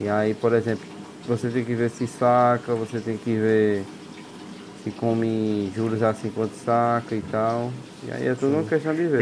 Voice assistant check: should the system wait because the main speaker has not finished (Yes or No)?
No